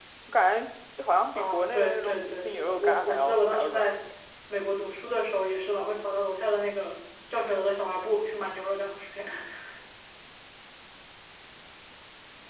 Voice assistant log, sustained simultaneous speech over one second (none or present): present